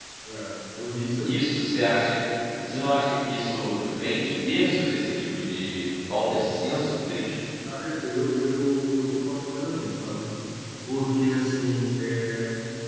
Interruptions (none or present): none